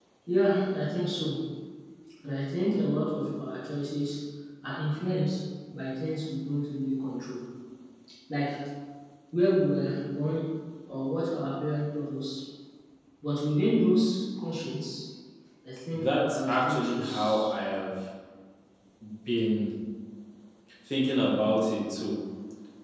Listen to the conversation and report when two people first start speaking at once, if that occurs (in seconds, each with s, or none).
15.9 s